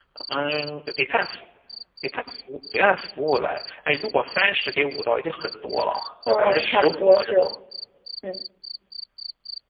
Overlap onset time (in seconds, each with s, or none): 6.3 s